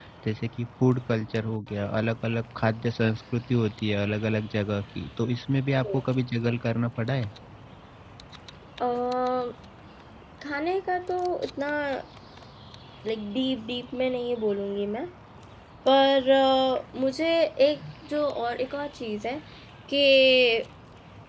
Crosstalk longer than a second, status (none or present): none